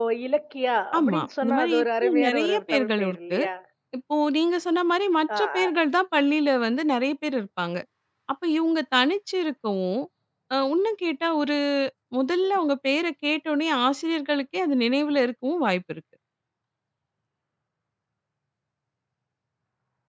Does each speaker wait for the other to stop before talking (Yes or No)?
No